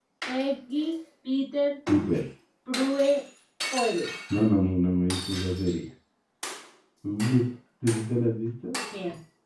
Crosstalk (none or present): none